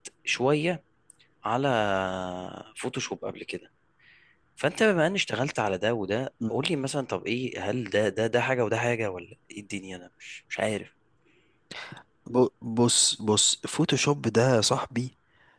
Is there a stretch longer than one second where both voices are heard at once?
No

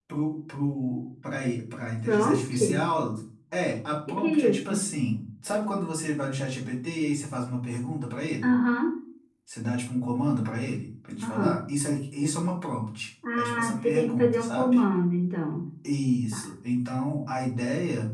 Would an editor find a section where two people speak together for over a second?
Yes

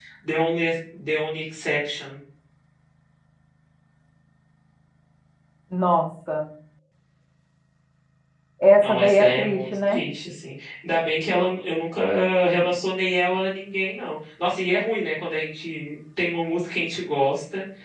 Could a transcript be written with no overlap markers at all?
No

